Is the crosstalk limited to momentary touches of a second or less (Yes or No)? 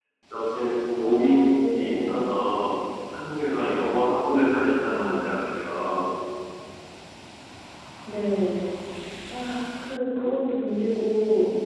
No